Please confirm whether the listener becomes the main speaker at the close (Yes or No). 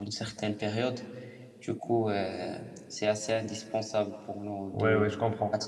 Yes